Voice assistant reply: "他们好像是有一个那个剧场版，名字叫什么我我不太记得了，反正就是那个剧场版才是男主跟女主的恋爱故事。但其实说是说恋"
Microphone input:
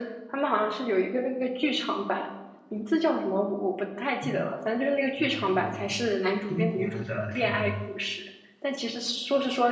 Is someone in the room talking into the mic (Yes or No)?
Yes